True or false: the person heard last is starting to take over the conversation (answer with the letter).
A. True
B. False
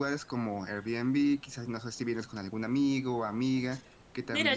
A